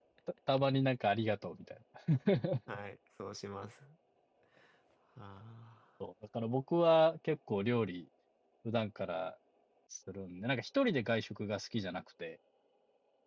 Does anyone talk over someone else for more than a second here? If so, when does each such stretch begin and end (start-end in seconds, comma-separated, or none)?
none